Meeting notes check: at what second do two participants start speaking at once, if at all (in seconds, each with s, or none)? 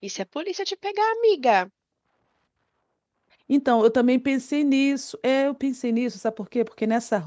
none